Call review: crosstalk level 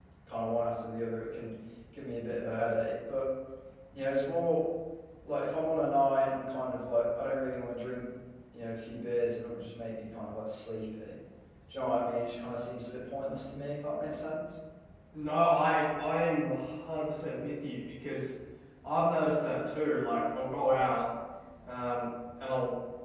none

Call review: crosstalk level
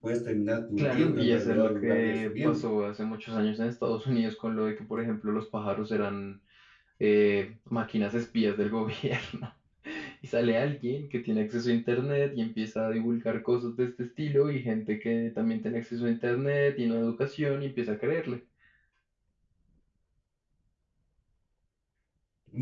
present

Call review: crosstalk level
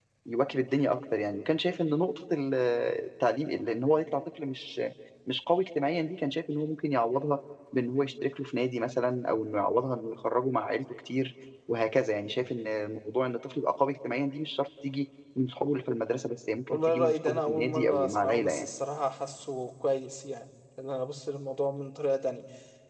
present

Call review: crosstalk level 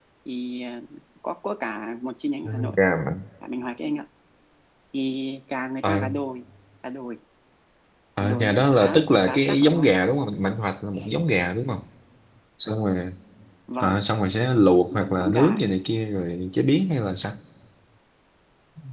present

